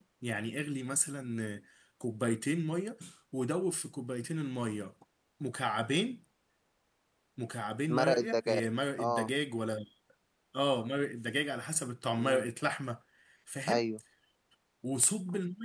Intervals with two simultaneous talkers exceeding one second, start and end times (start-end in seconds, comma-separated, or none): 7.9-9.3